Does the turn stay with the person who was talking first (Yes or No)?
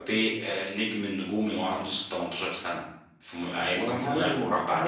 No